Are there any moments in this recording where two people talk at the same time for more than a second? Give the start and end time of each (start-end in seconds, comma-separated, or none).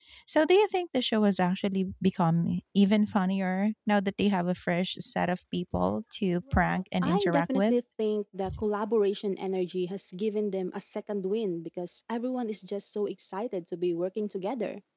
6.5-7.8